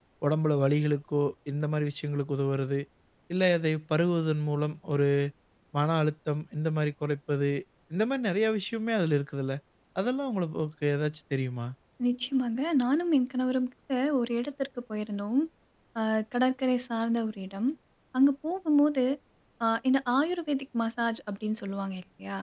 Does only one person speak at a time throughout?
Yes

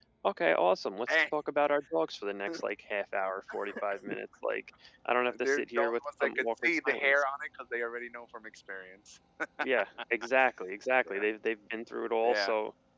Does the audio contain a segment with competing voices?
Yes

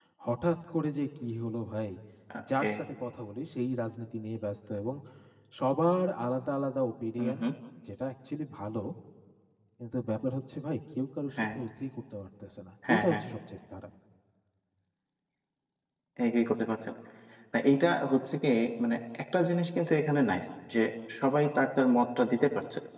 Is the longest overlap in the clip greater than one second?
No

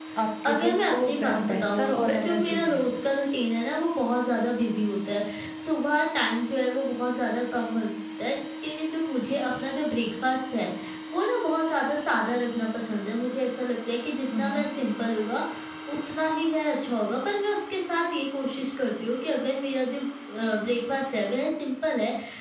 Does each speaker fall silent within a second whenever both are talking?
No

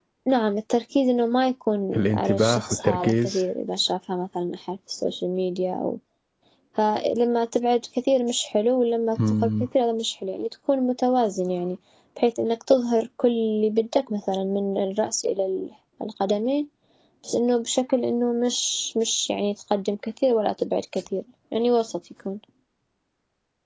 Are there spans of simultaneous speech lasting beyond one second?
Yes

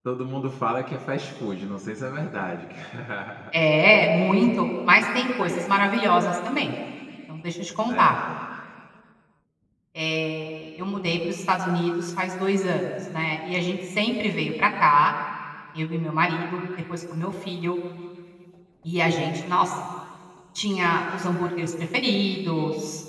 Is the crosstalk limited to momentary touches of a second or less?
Yes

